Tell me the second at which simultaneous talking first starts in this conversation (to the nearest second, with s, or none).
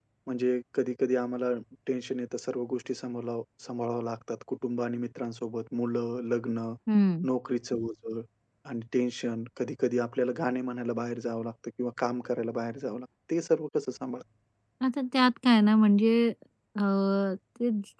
none